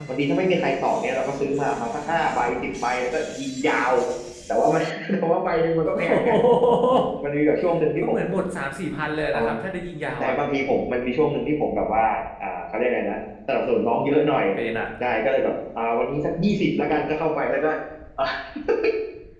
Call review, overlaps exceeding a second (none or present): none